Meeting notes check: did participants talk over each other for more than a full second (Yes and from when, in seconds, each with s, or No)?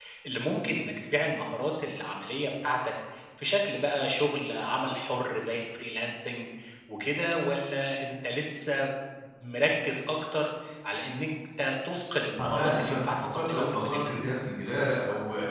Yes, from 12.4 s